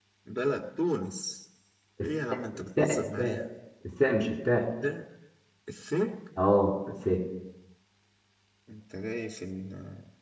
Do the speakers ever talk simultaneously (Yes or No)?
Yes